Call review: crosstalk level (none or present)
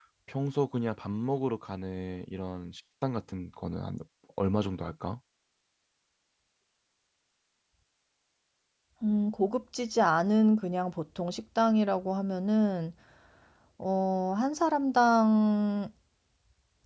none